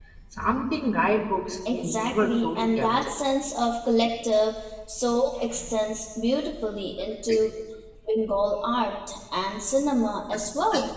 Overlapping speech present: Yes, from 1.6 s

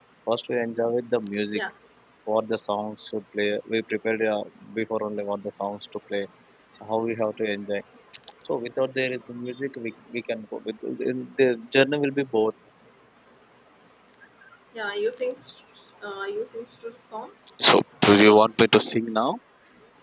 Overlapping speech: No

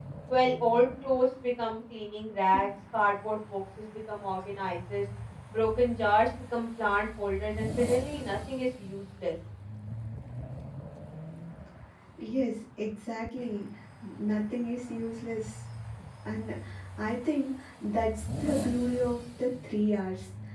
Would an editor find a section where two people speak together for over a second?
No

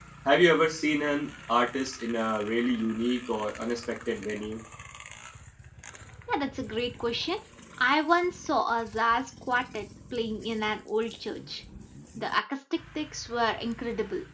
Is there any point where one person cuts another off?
No

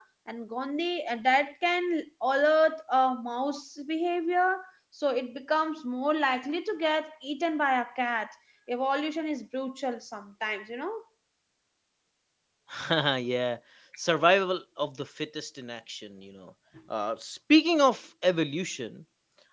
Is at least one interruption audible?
No

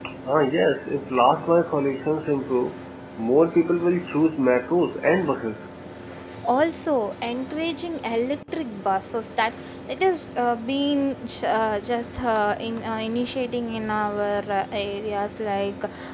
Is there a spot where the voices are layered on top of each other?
No

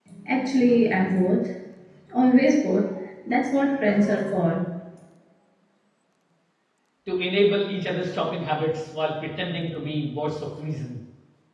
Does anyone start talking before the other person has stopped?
No

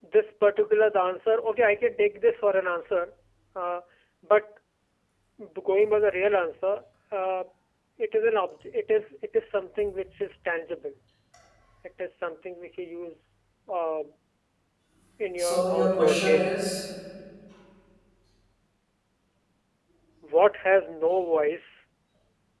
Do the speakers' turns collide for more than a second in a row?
Yes, from 15.4 s

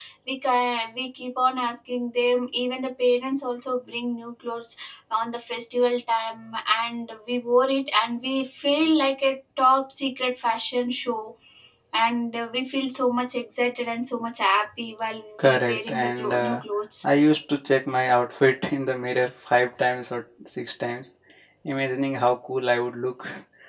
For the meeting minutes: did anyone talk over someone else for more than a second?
Yes, from 15.4 s

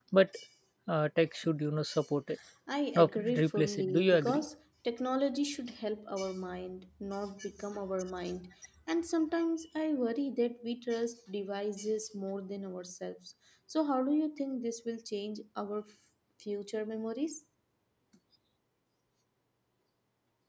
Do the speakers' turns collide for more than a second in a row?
Yes, from 3.0 s

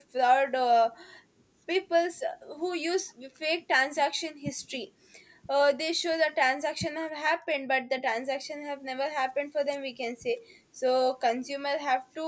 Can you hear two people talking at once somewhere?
No

